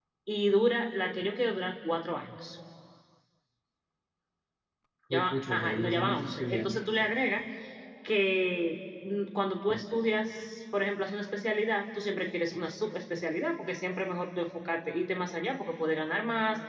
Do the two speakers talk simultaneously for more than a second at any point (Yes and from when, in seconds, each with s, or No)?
Yes, from 5.1 s